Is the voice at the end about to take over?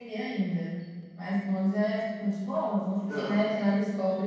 No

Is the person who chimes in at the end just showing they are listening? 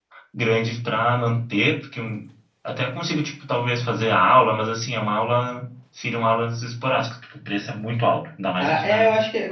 No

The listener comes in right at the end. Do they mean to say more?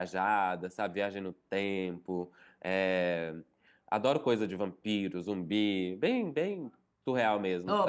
Yes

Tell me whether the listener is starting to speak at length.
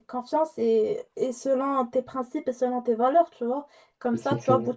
No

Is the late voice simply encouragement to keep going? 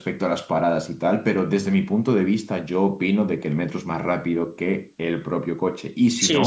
No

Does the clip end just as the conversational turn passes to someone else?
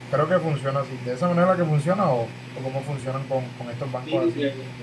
Yes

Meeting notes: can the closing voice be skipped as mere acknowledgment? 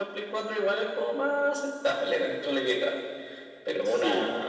Yes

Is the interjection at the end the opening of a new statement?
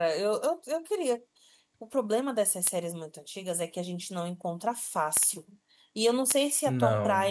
No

